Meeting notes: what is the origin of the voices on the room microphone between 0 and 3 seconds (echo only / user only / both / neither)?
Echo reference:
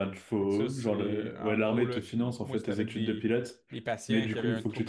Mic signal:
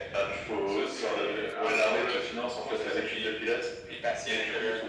echo only